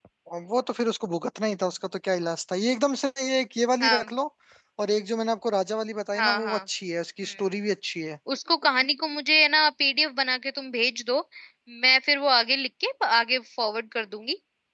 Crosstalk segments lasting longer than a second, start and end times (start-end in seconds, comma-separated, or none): none